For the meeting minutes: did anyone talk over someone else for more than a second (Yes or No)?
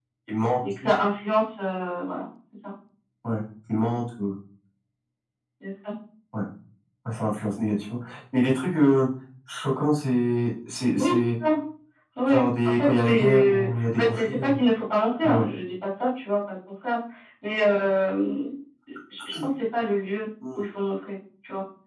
Yes